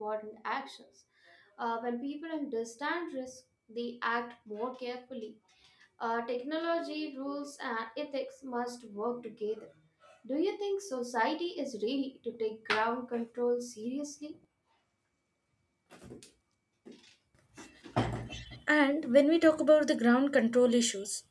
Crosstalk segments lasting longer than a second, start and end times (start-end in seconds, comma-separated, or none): none